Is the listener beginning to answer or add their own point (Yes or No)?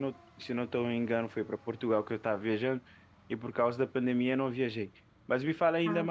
No